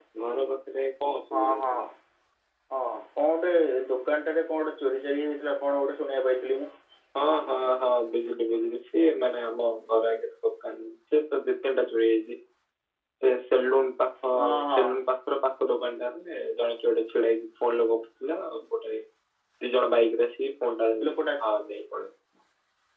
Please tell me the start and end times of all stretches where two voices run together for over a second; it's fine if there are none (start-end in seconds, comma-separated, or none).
none